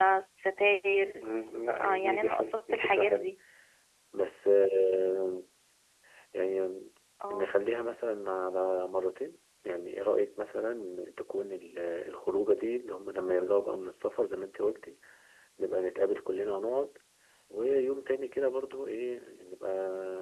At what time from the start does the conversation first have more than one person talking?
1.8 s

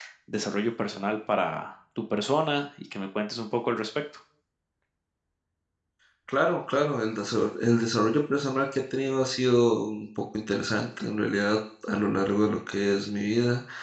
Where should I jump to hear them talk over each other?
none

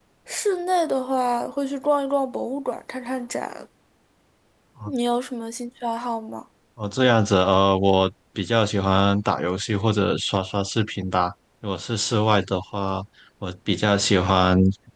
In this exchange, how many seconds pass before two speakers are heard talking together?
none

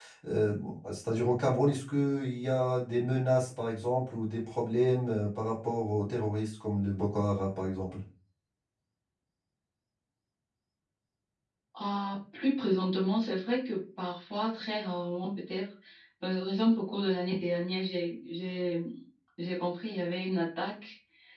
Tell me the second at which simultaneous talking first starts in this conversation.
none

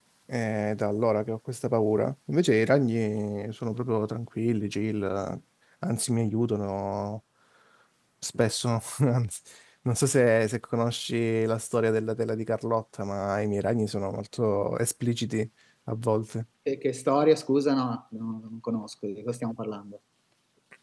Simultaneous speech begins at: none

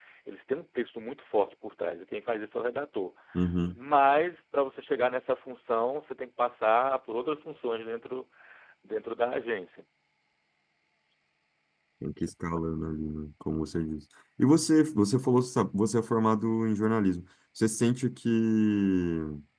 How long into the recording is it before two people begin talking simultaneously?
none

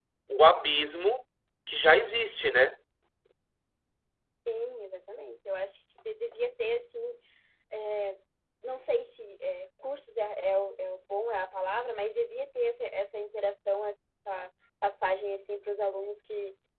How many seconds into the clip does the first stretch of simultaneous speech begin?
none

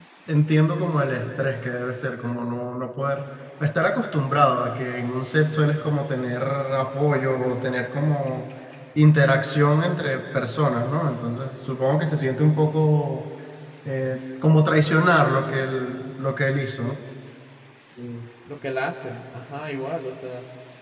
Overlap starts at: none

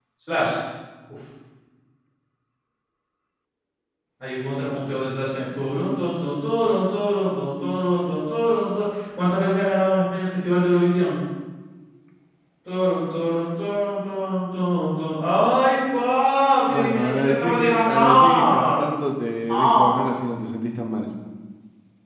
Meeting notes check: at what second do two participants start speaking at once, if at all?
16.7 s

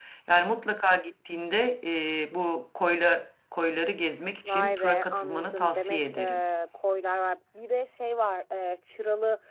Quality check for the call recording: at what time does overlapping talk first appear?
4.5 s

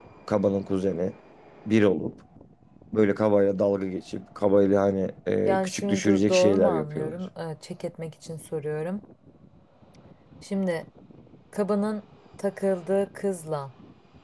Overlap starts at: 5.4 s

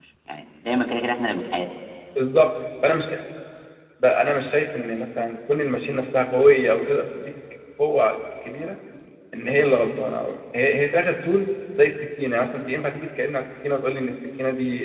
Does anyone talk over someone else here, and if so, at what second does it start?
none

